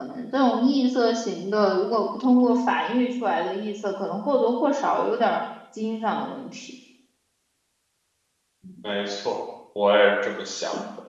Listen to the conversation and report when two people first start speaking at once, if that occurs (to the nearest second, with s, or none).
none